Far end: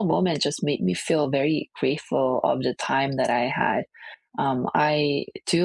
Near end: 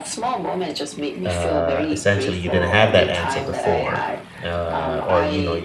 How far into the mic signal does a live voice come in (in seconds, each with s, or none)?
1.2 s